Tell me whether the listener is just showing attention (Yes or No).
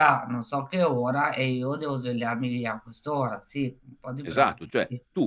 No